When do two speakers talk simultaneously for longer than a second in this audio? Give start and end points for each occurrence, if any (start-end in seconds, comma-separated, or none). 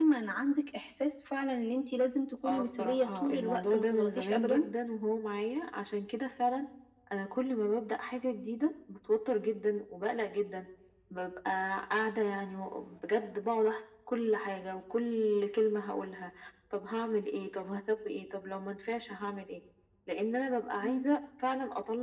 2.4-4.7